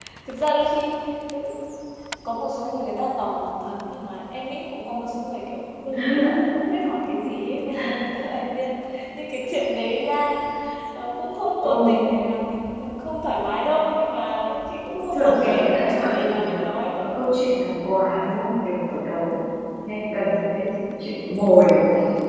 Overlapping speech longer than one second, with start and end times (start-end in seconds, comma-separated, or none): 15.1-16.5